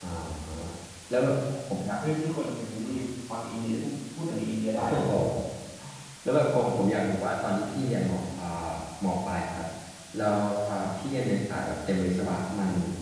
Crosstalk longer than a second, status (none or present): none